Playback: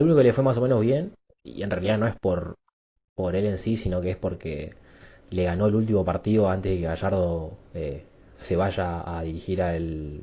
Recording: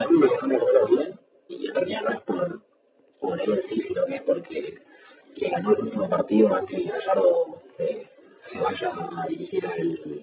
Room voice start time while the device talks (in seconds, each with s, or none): none